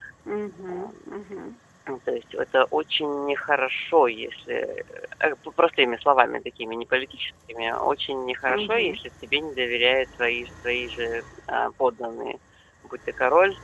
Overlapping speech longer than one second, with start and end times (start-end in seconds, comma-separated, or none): none